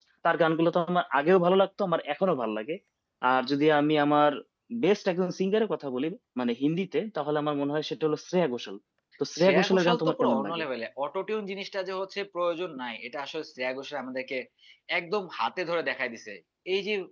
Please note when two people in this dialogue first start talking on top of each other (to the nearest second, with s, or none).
9 s